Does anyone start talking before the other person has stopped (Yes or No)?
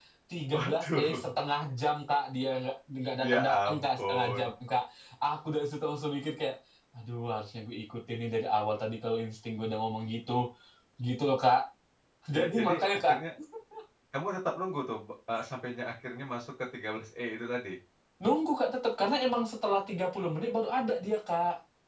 Yes